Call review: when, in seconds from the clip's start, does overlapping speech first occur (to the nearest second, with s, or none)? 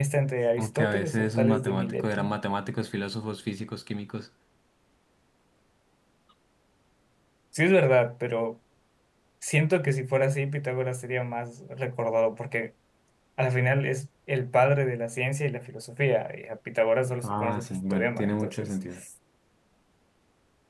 1 s